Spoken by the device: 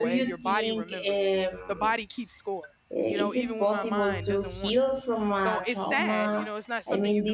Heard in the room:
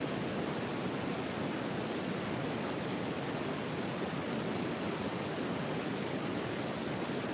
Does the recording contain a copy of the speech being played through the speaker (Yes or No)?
No